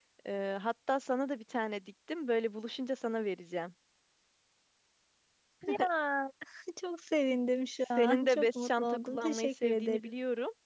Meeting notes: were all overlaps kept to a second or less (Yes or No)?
No